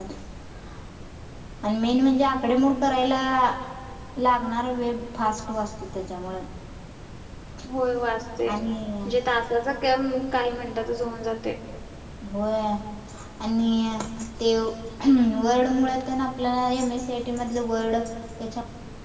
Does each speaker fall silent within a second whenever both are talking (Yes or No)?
Yes